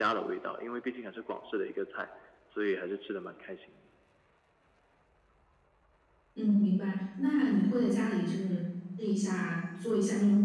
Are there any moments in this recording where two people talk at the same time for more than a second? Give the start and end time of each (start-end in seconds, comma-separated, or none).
none